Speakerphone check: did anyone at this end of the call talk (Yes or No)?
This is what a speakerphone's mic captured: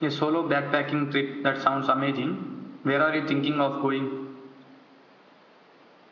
No